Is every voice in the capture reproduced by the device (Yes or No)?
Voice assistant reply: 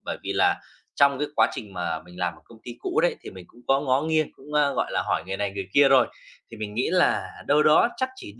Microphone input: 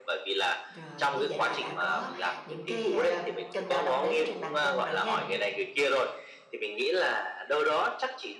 No